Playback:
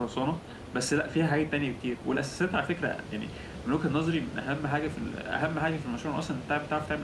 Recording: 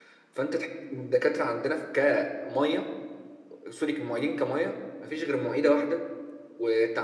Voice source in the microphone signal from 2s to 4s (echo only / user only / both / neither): user only